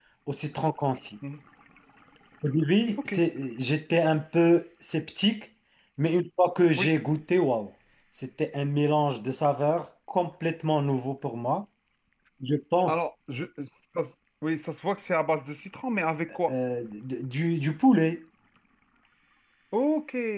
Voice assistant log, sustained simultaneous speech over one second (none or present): none